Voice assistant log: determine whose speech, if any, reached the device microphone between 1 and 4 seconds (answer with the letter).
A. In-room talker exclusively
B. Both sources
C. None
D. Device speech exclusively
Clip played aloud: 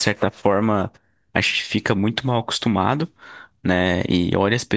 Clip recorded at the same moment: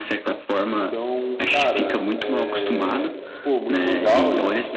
B